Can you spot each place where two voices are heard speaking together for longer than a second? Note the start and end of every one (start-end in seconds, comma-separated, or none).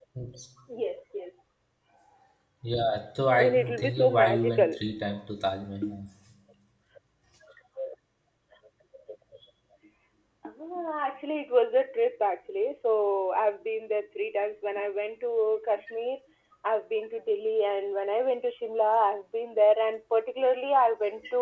3.4-4.8